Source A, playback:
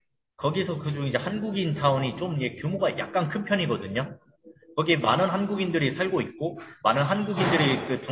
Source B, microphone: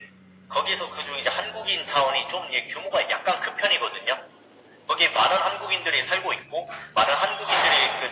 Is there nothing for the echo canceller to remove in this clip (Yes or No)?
No